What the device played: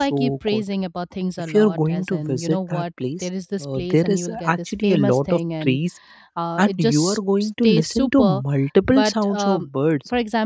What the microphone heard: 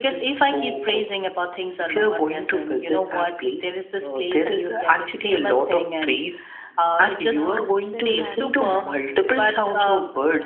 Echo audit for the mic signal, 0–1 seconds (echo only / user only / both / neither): echo only